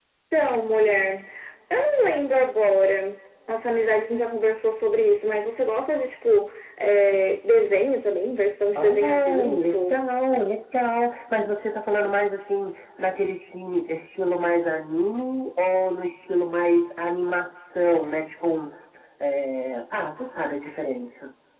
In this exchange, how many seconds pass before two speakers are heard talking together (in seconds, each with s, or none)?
8.8 s